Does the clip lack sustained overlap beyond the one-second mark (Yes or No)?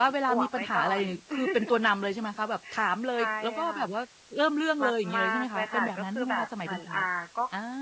No